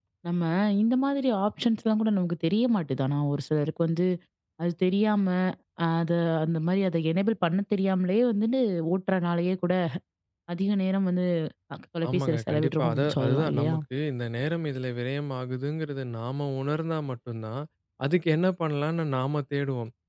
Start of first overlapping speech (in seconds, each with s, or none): 12.1 s